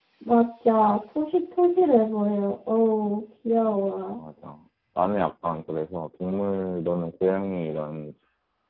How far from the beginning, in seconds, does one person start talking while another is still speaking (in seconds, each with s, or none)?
none